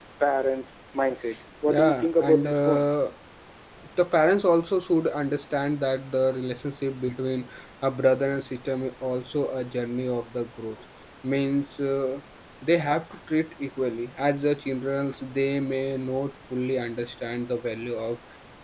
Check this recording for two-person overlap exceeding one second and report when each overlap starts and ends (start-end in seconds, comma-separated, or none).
1.7-2.9